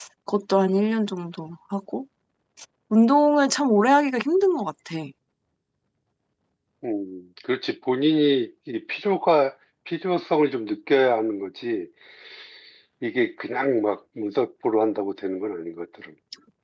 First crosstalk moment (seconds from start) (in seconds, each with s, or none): none